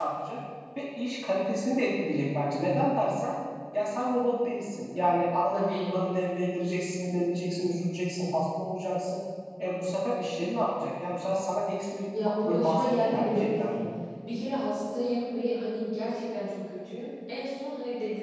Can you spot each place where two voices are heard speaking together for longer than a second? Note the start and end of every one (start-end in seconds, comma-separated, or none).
12.4-13.8